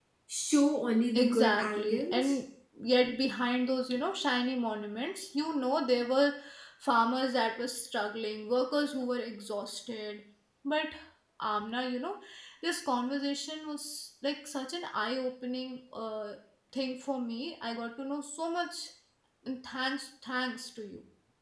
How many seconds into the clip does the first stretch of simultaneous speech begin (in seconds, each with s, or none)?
1.2 s